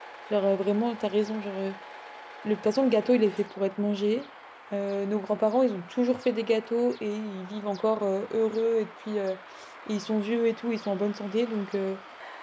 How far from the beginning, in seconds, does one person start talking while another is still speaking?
none

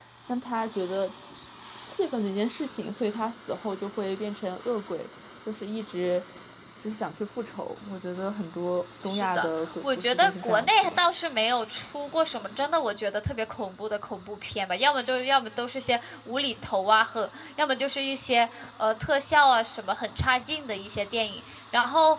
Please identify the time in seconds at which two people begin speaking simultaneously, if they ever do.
9.1 s

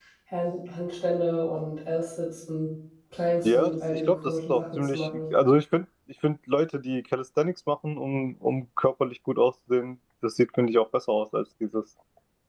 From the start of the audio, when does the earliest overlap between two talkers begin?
3.4 s

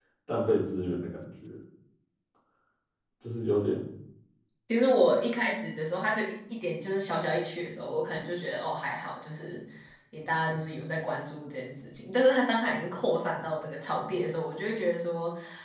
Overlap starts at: none

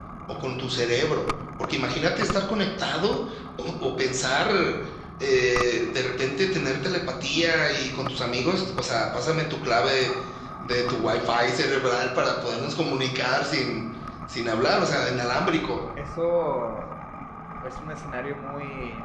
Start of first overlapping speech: none

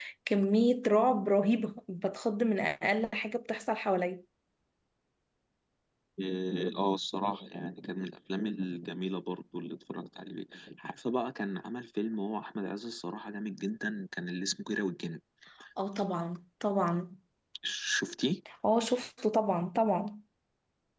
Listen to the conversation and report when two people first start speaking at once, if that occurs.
none

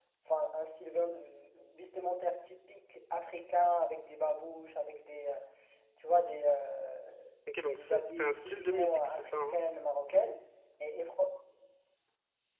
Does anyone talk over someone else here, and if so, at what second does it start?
7.7 s

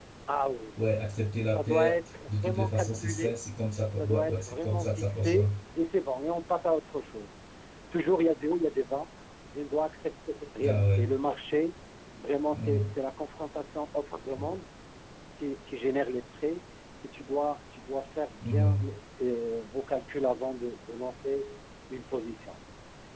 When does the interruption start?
1.5 s

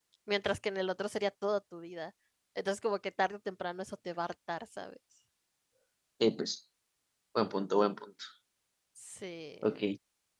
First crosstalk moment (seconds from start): none

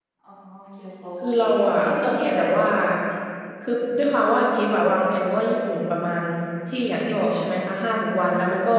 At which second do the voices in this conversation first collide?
1.2 s

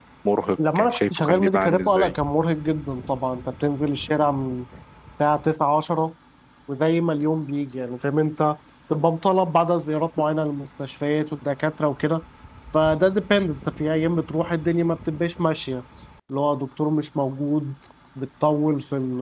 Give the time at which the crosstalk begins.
0.8 s

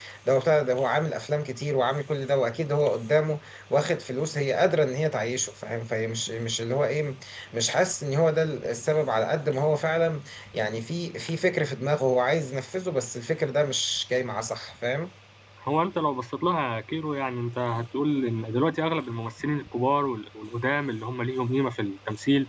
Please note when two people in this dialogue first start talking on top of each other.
none

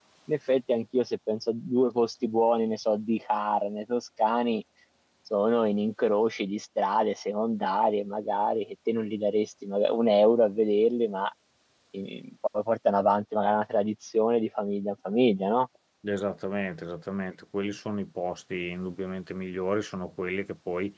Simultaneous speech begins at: none

